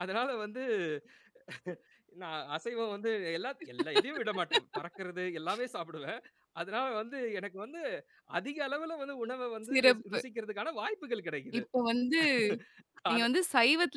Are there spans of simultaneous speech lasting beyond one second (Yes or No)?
No